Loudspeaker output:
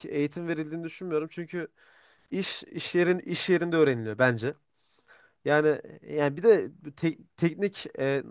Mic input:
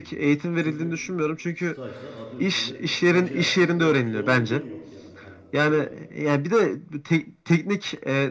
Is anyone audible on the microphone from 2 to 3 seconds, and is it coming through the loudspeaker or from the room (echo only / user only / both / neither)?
both